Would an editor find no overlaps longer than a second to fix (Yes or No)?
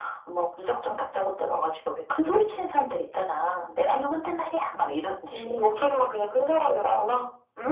Yes